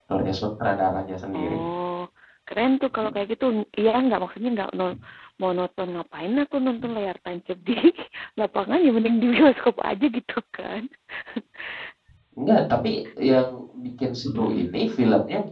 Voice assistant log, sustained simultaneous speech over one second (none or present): none